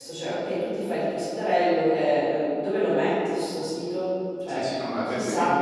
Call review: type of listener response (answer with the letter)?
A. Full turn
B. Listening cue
A